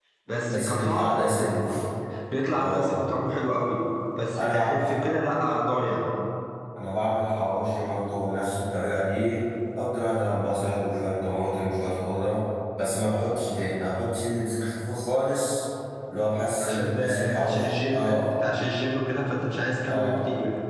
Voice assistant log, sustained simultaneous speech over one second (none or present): present